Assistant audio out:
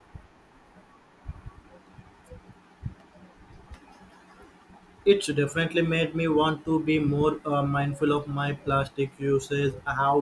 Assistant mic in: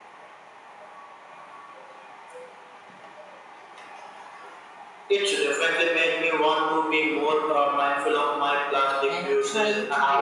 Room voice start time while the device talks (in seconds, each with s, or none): 9.1 s